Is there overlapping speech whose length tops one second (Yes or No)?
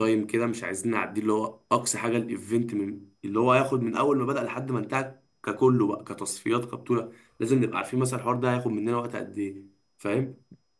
No